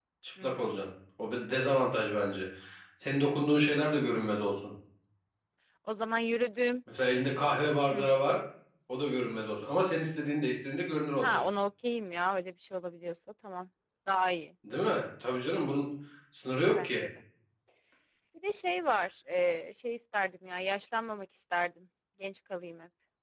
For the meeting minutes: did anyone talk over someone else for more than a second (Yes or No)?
No